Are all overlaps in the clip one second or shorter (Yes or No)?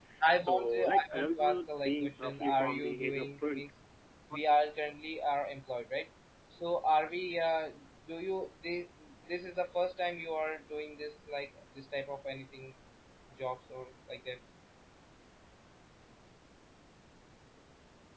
No